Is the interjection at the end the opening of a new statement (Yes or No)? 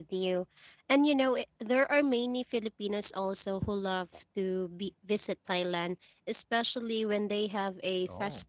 No